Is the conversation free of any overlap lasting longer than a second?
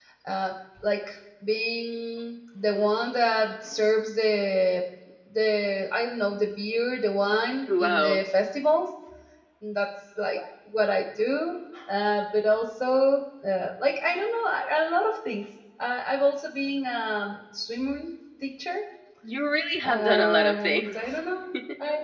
No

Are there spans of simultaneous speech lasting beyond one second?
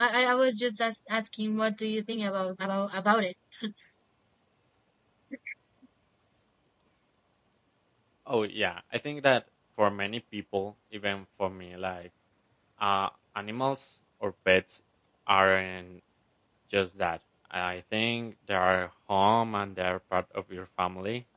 No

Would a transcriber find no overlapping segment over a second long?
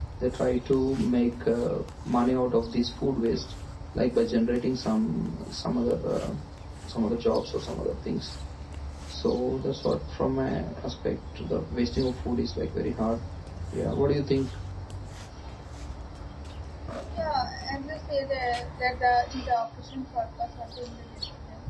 Yes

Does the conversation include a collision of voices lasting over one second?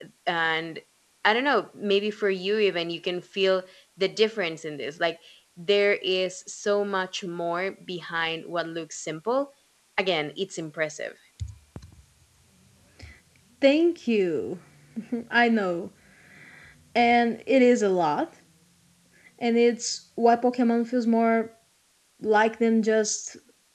No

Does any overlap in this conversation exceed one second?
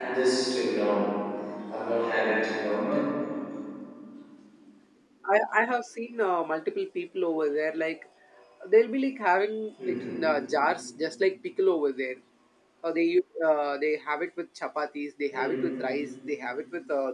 No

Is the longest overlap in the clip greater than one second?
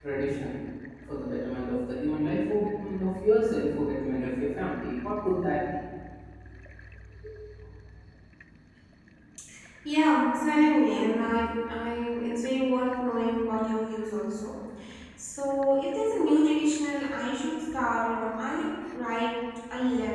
No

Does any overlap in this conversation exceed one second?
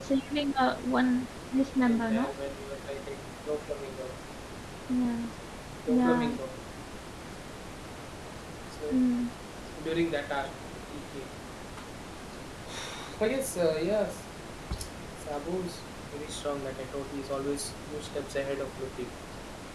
No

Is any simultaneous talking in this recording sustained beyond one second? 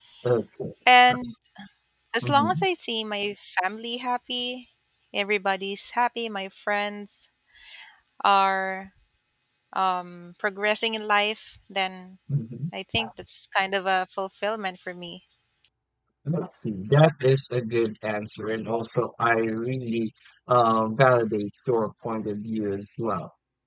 No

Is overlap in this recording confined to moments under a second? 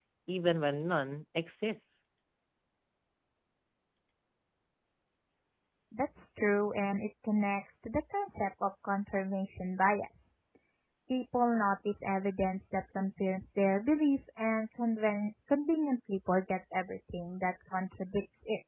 Yes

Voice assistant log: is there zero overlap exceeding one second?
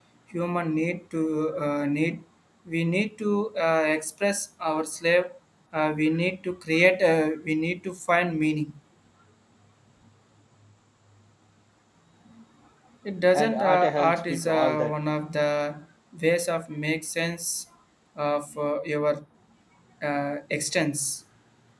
No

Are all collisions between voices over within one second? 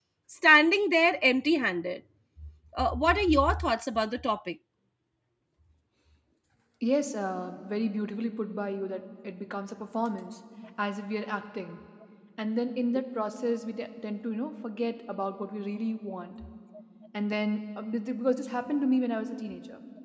Yes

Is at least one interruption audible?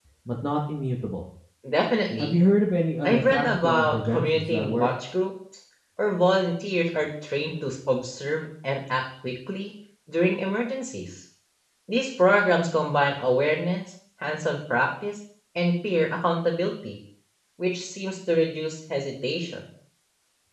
Yes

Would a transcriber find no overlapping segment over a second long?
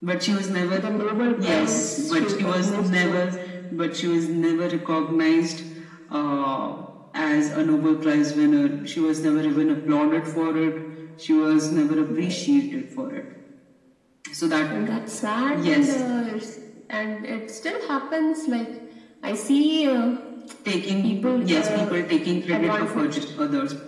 No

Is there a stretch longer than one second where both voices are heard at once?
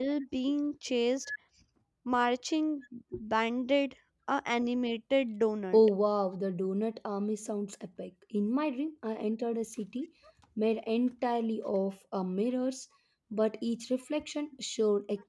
No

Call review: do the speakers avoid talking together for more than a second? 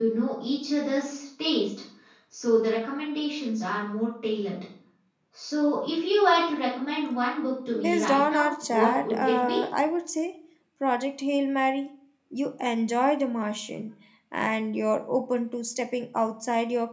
No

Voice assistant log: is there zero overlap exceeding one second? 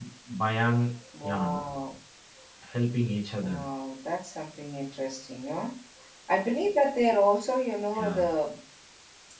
Yes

